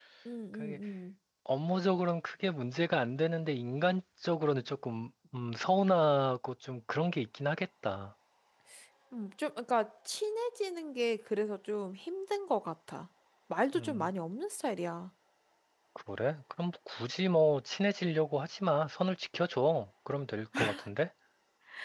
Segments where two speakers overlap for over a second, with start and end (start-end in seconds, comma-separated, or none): none